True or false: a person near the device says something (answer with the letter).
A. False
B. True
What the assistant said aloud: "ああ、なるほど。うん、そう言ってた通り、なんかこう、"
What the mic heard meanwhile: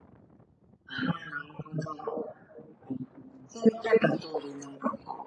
A